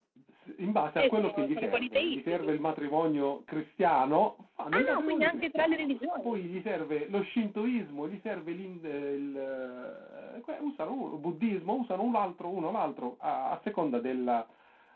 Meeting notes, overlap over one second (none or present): present